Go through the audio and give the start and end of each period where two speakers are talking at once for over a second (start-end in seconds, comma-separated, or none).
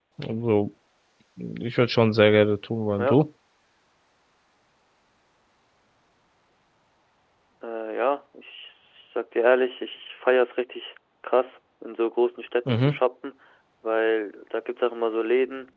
none